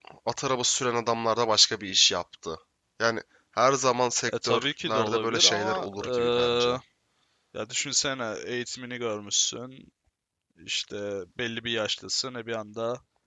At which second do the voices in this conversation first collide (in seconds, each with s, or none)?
4.3 s